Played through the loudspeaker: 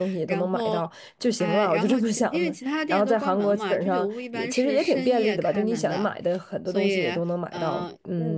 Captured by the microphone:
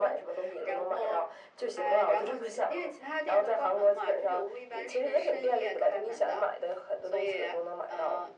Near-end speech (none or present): none